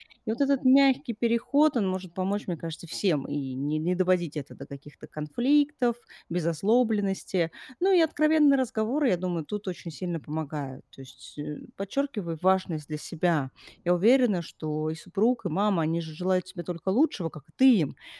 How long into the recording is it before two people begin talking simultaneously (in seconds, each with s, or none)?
none